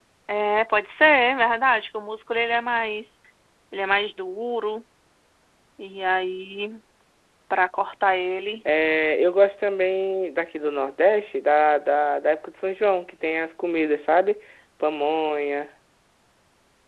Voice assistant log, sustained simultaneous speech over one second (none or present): none